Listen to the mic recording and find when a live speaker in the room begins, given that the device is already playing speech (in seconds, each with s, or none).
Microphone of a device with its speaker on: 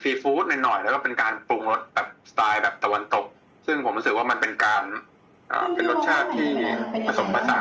5.6 s